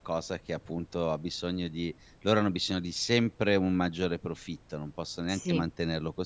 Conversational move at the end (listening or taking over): listening